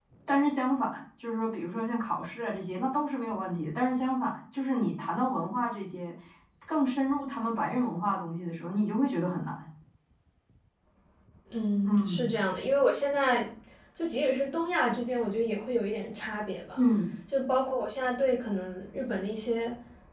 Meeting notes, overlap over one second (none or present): none